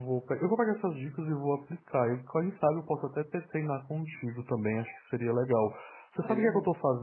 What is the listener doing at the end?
listening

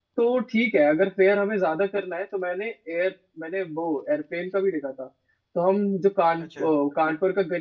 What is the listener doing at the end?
listening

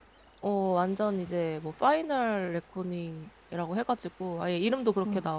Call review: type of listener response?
listening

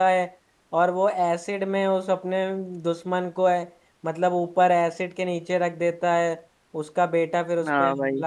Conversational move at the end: taking over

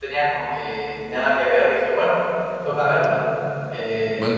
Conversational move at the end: listening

